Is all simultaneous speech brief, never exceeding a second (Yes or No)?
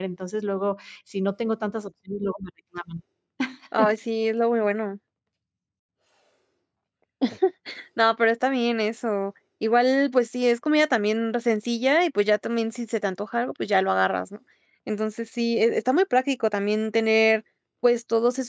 Yes